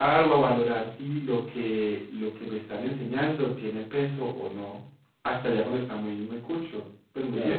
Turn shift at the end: Yes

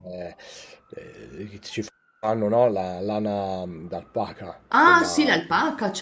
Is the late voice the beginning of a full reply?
Yes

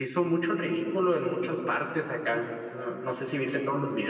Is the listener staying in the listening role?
Yes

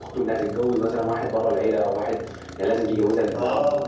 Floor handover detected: Yes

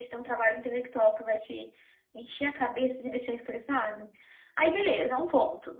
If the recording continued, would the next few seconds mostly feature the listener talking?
No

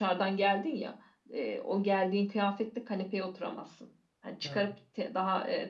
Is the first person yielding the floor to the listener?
No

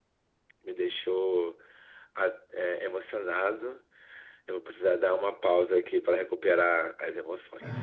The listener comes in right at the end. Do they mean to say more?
Yes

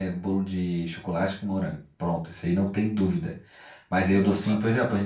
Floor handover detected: No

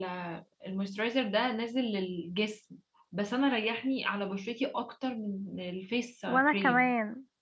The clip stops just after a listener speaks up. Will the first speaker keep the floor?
No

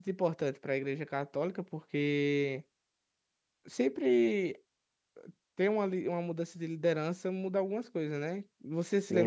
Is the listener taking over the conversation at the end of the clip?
Yes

